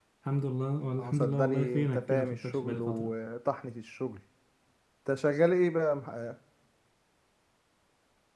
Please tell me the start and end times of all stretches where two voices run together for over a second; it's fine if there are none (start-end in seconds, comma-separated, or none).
1.0-3.1